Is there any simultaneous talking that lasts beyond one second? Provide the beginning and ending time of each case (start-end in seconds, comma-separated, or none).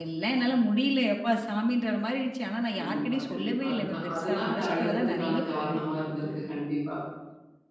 2.8-5.8